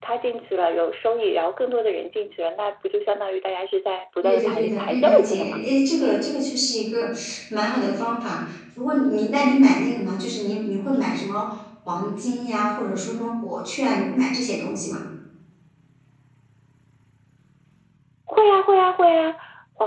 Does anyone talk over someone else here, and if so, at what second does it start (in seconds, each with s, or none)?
4.2 s